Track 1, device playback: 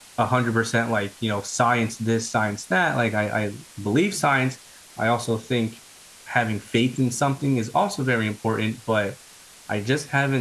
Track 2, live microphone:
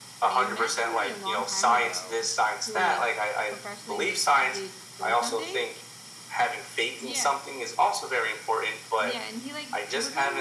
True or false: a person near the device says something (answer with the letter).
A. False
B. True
B